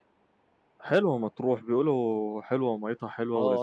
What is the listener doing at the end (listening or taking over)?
taking over